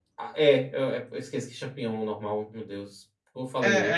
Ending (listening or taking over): taking over